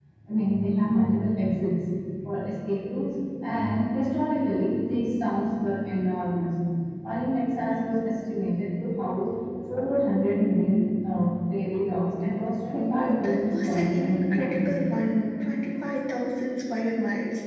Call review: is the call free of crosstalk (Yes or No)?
No